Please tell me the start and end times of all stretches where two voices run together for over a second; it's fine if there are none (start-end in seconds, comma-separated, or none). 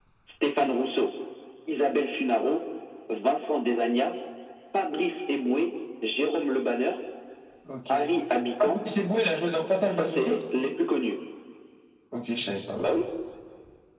none